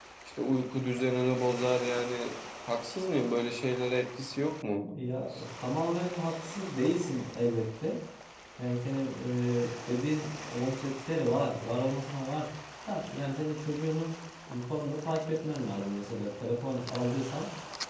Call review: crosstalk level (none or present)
none